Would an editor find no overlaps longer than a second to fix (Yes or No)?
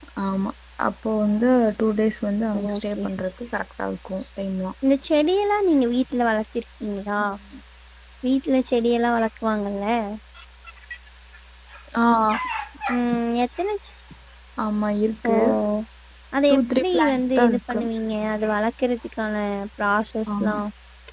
No